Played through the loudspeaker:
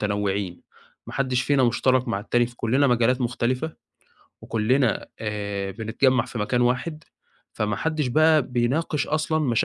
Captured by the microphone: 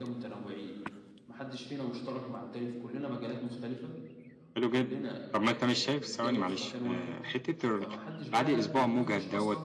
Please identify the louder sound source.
user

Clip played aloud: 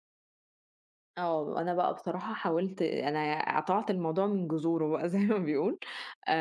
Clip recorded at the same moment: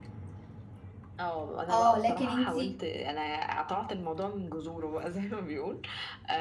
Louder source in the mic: user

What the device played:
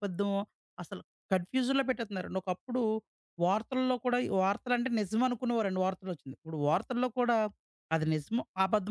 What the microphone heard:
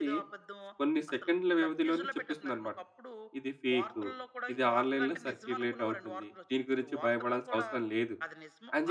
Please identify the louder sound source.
user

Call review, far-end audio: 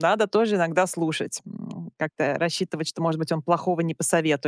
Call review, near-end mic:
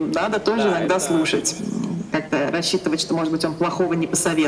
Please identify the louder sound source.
echo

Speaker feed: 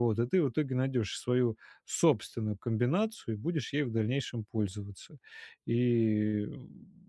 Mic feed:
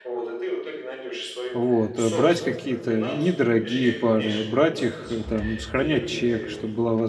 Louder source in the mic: user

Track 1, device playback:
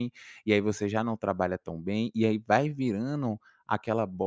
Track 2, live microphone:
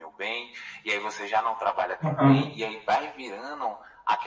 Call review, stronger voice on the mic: user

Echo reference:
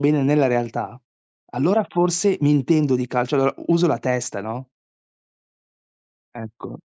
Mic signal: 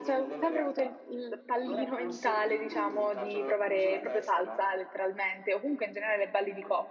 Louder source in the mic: user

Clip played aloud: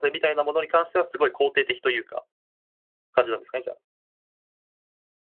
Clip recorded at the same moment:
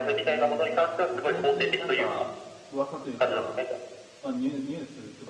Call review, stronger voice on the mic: echo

